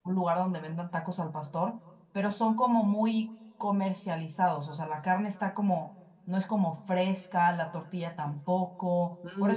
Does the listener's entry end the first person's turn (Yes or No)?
Yes